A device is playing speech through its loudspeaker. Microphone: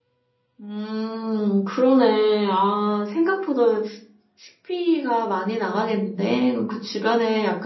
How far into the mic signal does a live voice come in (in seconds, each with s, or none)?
0.6 s